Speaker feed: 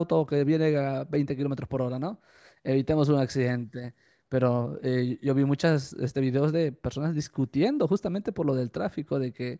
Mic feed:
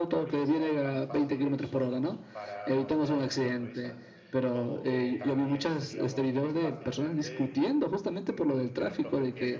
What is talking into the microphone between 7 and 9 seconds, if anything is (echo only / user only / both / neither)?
both